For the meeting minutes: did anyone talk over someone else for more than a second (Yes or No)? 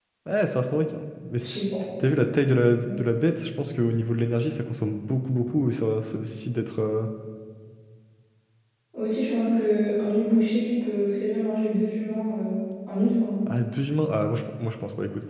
No